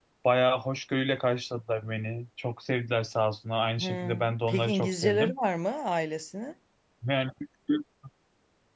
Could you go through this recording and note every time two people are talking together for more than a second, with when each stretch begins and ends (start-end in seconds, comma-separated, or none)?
3.8-5.3